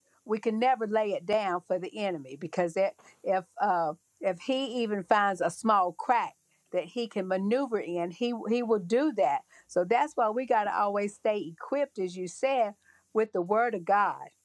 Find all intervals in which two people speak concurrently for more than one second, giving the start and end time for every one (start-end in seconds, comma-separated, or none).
none